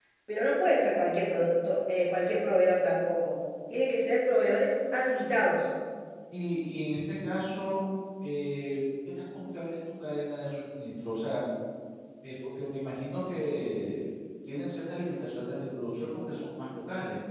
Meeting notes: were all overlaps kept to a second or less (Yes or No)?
Yes